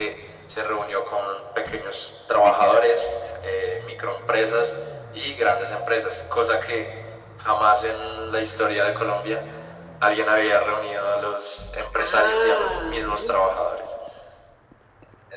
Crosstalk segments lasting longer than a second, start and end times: 12.0-13.5

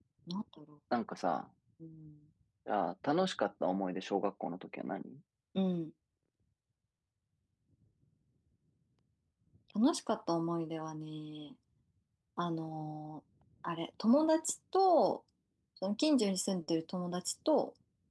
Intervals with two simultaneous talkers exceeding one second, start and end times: none

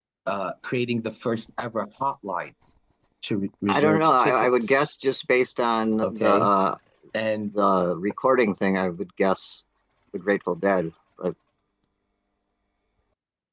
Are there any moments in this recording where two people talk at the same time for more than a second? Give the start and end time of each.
3.7-5.0

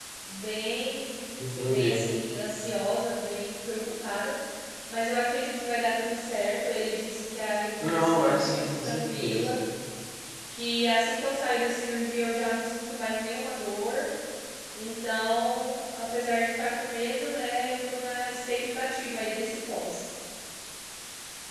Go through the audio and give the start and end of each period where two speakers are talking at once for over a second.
7.8-9.6

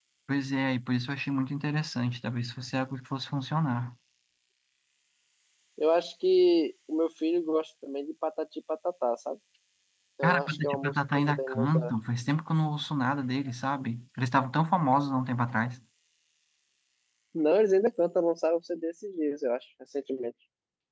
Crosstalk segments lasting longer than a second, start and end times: 10.2-11.9

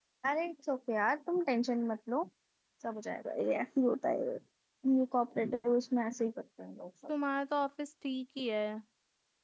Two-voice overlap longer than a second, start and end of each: none

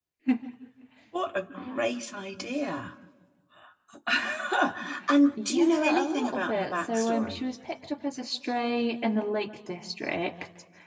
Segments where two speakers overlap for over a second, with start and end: 5.4-7.4

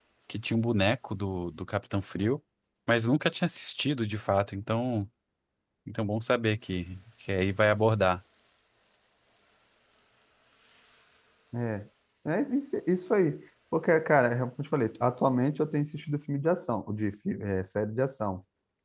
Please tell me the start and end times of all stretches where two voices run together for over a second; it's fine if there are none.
none

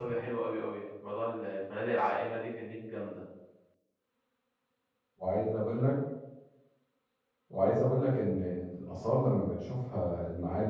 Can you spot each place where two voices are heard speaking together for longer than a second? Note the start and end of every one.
none

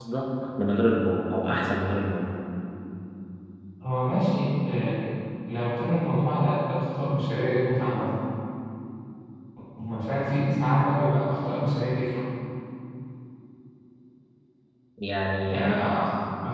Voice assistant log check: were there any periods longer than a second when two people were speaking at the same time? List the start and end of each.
none

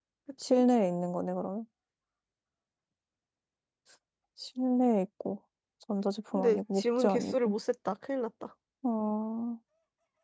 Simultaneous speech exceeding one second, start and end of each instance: 6.3-7.5

